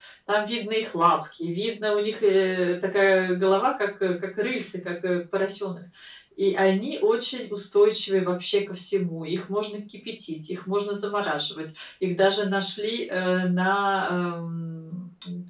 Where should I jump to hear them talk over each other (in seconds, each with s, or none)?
none